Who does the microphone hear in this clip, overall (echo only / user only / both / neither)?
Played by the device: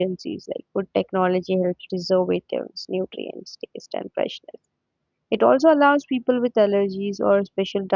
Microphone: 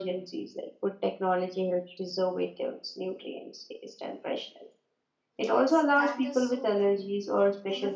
both